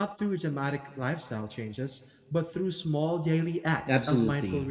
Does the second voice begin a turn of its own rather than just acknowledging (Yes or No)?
Yes